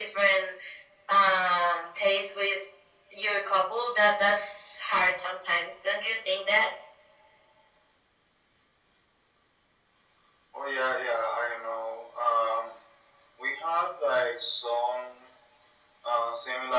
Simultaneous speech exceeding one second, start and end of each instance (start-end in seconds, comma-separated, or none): none